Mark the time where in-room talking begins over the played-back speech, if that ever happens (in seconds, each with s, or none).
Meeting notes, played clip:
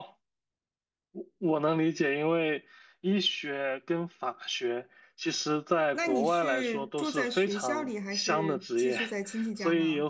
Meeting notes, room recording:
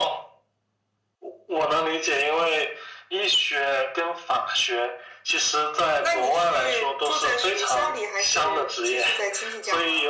none